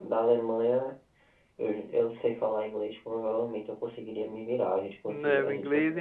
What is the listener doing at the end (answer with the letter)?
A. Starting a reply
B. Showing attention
A